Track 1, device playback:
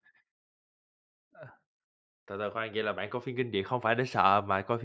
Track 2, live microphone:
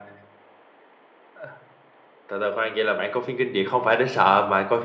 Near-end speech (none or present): none